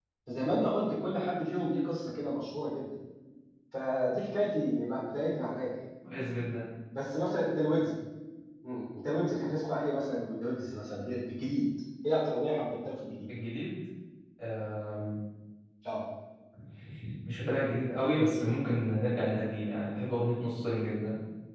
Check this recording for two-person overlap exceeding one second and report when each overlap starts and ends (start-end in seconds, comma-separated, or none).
none